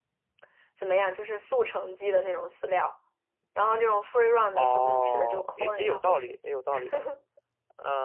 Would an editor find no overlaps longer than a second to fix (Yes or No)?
No